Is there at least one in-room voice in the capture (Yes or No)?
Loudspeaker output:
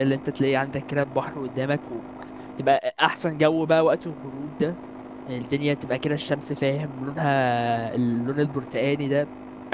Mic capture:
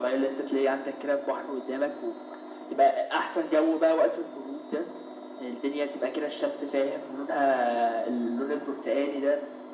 No